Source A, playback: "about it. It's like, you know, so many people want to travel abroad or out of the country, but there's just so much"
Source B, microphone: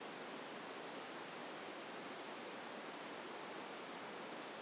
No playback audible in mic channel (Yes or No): Yes